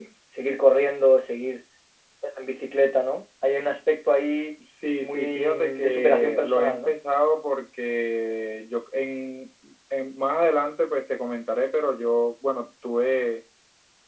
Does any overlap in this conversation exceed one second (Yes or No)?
Yes